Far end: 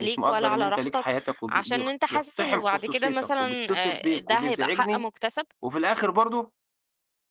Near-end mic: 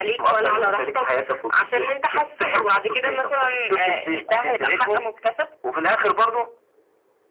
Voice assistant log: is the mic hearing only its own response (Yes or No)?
Yes